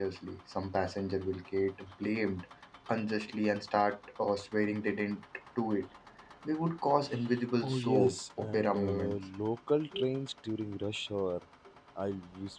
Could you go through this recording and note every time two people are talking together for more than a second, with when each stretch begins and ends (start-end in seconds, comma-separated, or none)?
7.6-9.2